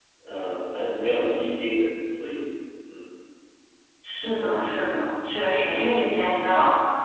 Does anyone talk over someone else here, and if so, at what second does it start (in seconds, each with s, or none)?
none